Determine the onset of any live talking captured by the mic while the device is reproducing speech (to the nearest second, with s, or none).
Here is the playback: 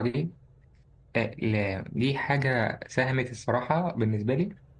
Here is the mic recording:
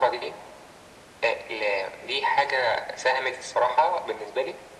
none